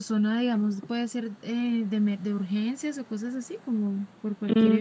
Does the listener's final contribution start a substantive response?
Yes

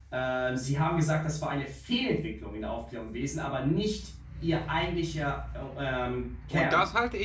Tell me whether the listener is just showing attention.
No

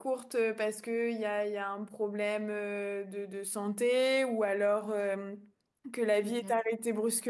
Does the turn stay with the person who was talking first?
Yes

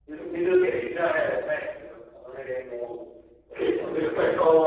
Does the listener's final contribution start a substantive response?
Yes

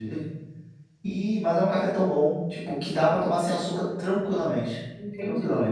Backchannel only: No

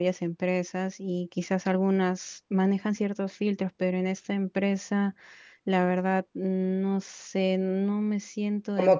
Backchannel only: No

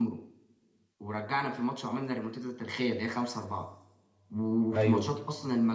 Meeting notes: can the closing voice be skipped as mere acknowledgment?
Yes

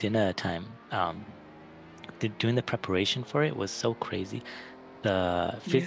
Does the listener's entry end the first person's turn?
No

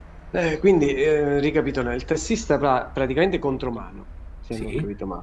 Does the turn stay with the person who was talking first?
Yes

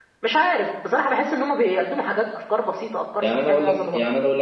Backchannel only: No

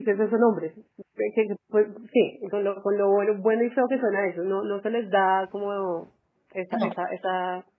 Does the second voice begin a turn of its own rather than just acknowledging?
No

